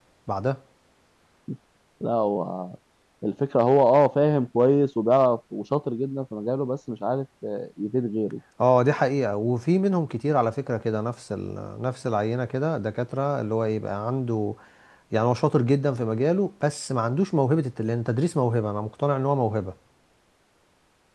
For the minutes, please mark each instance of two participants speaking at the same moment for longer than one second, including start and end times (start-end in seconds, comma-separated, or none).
none